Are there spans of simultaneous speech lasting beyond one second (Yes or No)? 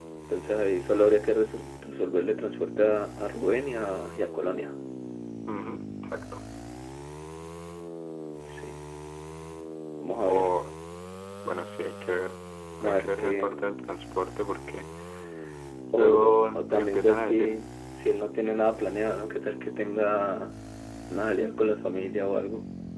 Yes